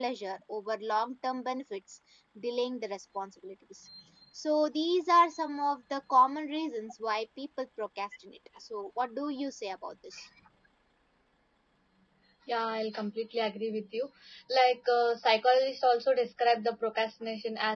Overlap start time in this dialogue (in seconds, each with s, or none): none